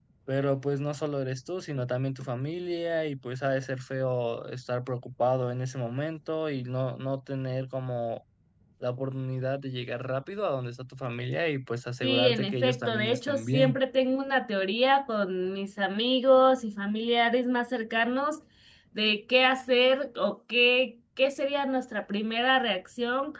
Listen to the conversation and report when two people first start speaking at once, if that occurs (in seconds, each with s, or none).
12.0 s